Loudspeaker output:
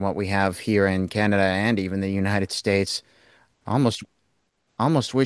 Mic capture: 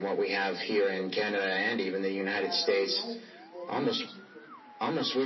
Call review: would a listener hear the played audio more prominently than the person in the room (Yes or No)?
Yes